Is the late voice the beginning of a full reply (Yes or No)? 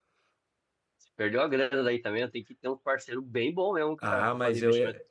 Yes